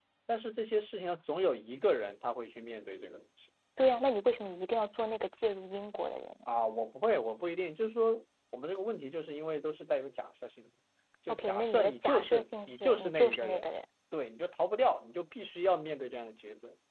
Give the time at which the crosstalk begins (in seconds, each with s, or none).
11.3 s